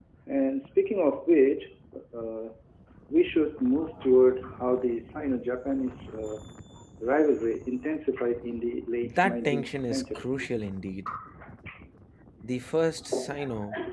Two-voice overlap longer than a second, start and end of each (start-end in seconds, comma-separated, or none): 9.0-10.3